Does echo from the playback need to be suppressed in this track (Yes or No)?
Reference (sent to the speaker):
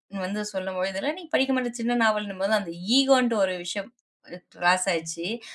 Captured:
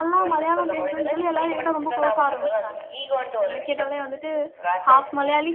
Yes